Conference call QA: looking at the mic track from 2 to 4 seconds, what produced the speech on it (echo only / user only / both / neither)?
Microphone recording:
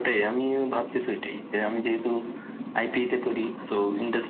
echo only